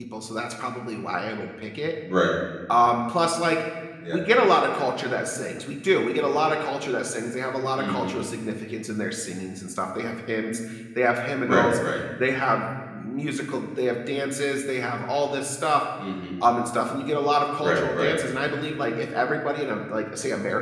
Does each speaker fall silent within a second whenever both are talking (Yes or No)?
Yes